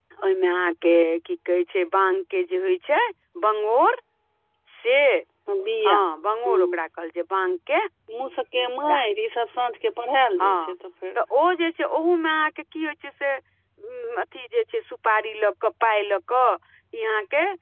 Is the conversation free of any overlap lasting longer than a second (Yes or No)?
Yes